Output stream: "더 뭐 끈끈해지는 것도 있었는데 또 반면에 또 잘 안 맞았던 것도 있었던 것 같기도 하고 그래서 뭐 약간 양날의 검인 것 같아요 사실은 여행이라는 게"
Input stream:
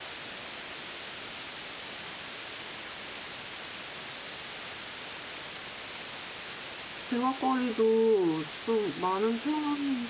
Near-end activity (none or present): present